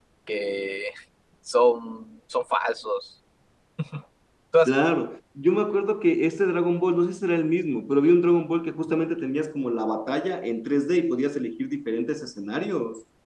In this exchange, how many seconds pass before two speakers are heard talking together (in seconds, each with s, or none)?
none